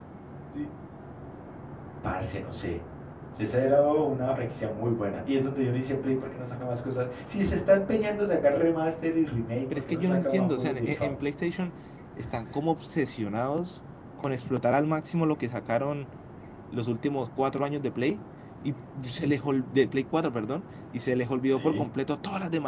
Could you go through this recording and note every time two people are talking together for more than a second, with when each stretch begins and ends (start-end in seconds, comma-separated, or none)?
9.9-11.2